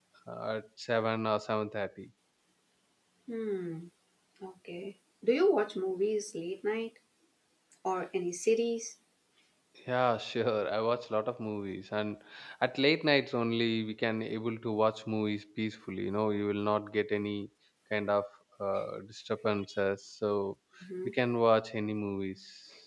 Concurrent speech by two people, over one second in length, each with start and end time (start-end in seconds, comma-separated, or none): none